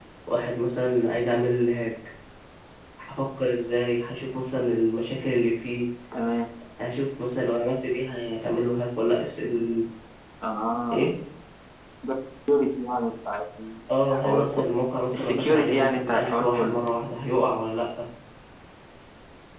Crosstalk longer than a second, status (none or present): present